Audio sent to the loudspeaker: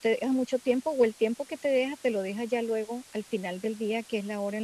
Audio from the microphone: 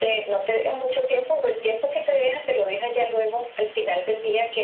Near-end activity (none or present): none